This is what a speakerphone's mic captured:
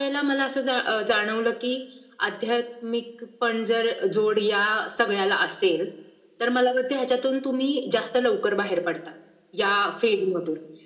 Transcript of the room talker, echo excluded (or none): none